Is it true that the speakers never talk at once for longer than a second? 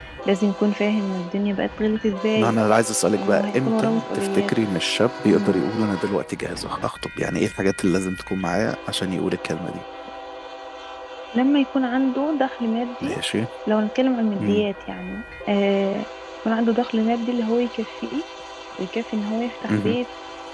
No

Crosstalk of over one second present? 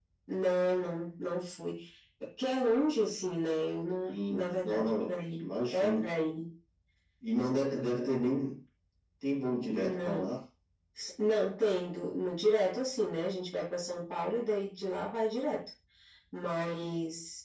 Yes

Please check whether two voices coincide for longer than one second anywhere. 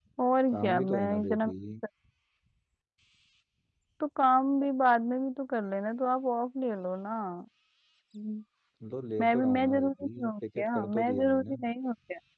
Yes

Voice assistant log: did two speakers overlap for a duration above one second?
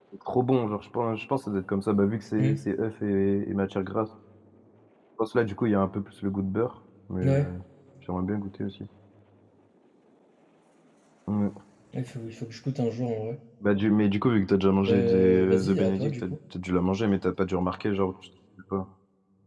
Yes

